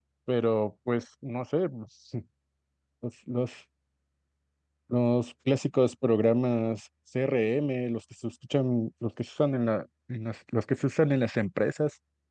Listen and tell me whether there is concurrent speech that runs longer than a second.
No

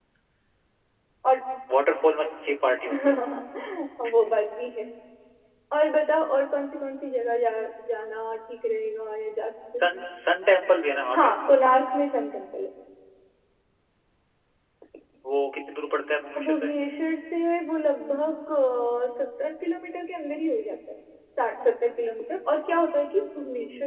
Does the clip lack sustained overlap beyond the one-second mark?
Yes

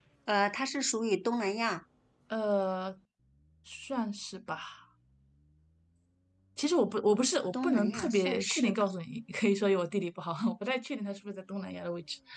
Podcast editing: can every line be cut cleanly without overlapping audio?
No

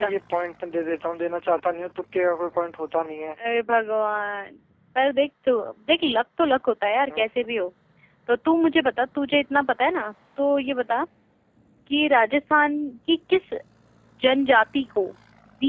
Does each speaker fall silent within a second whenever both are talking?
Yes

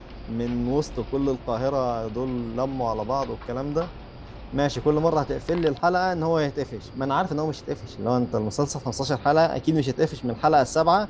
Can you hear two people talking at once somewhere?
No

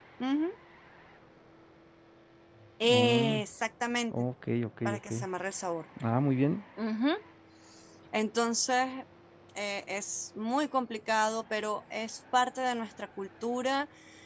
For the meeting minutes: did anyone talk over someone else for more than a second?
No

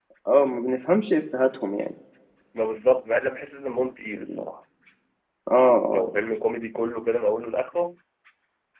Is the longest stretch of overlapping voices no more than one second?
Yes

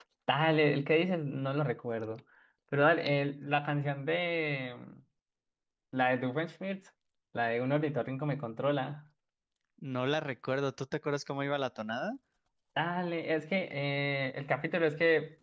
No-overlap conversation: Yes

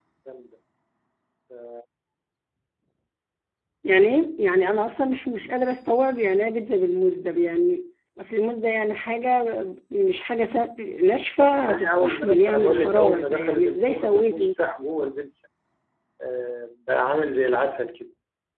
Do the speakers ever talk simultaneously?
Yes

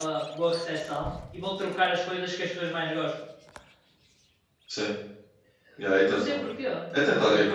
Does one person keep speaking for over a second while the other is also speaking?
No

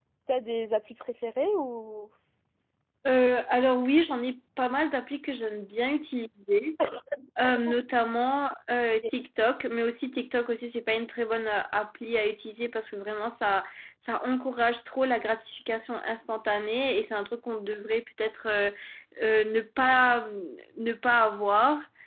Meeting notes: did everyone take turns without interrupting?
Yes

